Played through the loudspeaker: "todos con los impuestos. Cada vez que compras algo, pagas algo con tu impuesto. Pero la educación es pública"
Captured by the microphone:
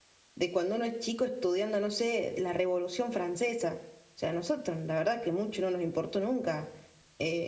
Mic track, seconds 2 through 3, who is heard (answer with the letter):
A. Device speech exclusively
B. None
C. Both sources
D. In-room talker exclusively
D